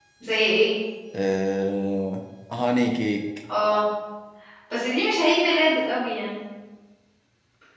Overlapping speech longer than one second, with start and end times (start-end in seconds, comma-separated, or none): none